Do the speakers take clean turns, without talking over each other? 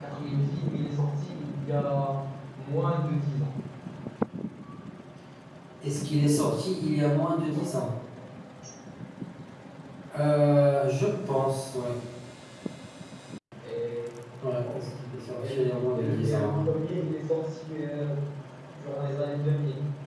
No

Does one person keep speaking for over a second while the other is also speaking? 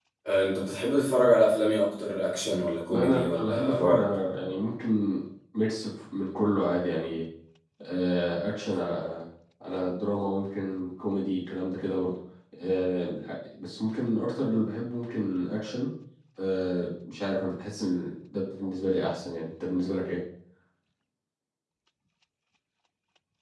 Yes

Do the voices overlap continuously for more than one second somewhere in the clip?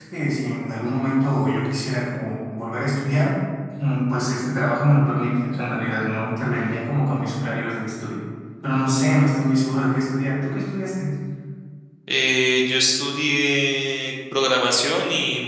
No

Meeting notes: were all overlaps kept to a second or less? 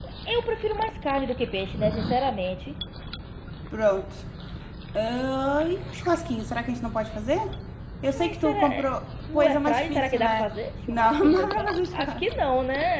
No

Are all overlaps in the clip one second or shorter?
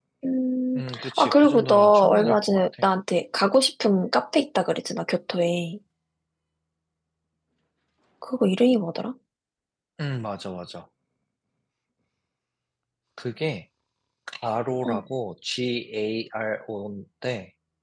No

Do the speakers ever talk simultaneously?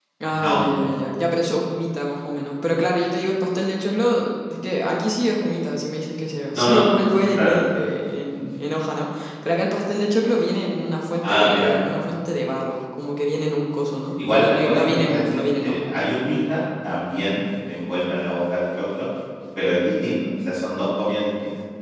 Yes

